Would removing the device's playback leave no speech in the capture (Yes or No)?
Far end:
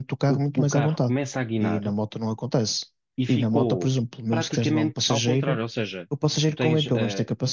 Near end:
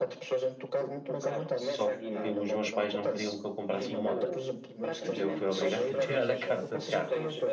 No